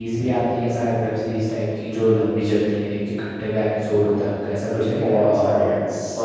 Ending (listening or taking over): taking over